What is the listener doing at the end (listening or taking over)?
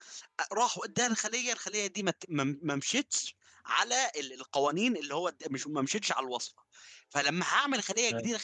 listening